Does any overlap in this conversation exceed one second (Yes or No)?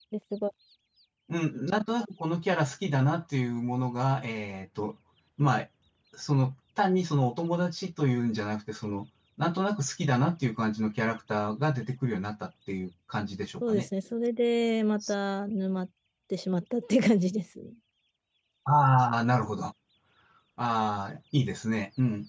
No